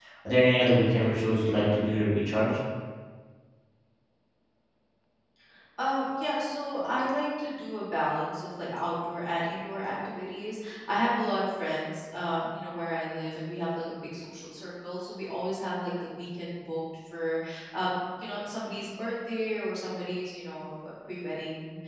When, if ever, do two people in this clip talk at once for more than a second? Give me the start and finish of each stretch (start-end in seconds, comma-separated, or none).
none